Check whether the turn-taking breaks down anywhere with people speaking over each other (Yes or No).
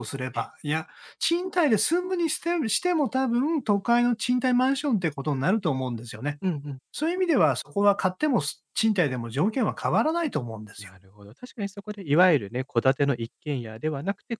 No